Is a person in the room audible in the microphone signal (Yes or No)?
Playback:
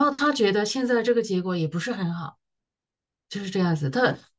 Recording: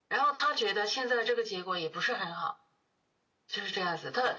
No